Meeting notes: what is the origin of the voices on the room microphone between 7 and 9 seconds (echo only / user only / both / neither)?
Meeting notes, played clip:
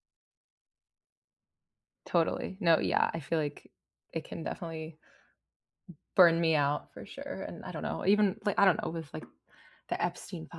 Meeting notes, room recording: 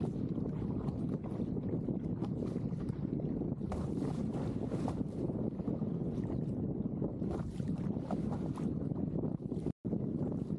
neither